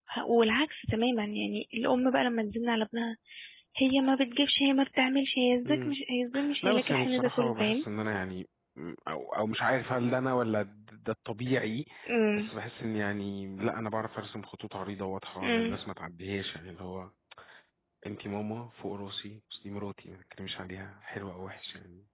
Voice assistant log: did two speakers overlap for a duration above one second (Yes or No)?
Yes